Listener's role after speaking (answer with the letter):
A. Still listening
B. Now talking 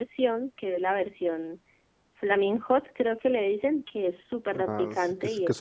B